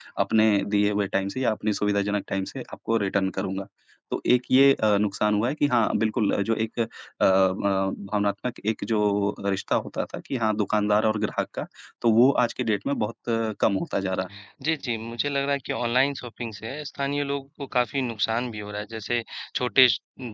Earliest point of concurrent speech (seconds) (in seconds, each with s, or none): none